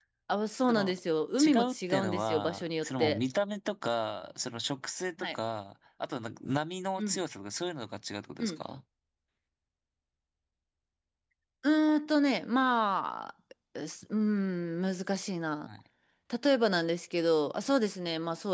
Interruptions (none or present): present